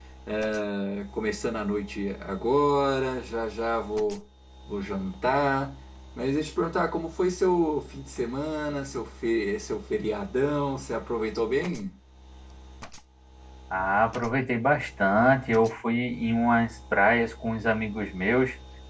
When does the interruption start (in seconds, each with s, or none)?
none